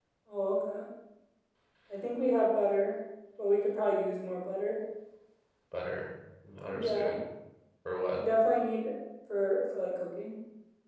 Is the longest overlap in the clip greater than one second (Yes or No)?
No